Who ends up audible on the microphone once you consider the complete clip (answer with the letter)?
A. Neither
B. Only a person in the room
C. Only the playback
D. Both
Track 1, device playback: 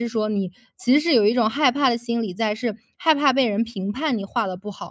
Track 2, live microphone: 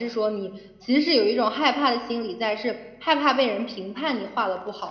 C